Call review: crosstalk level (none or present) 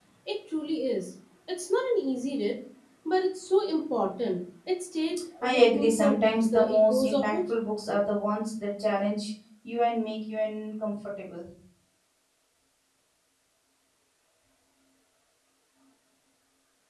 present